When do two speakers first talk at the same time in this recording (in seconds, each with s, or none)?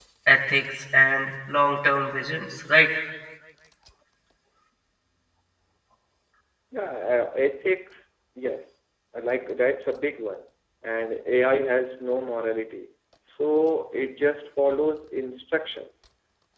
none